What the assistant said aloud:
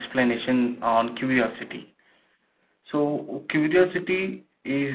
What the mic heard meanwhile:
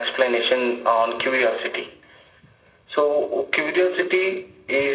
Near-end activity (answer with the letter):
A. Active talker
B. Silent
B